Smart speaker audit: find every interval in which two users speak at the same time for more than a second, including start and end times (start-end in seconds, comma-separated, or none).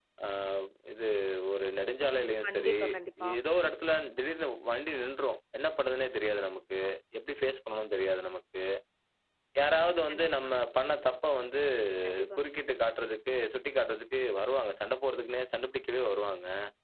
none